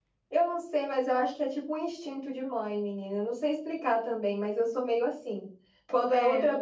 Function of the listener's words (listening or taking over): listening